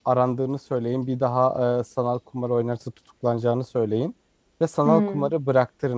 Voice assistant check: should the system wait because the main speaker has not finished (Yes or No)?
Yes